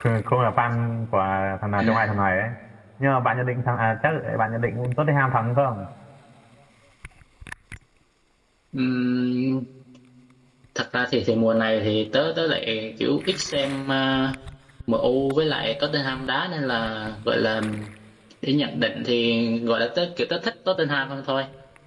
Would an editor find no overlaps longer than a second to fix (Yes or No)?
Yes